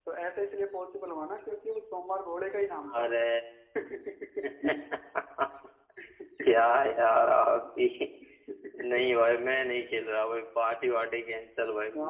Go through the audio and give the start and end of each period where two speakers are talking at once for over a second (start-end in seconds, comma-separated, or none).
none